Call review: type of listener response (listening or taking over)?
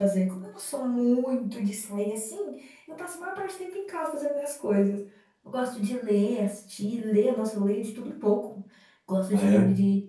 listening